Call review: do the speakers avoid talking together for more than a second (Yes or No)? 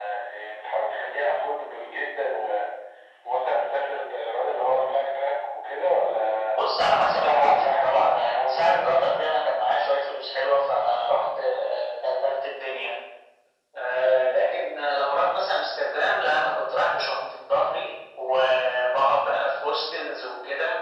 No